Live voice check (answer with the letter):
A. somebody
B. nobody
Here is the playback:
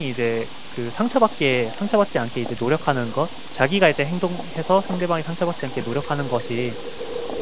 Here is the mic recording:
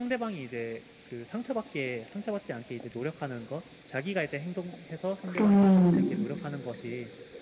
A